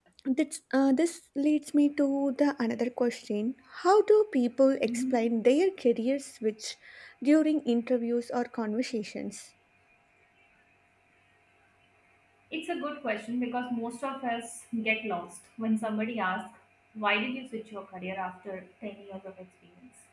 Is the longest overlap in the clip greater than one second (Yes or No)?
No